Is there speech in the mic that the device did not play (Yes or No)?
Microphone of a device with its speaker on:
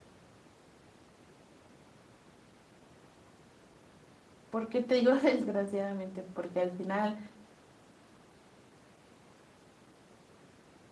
Yes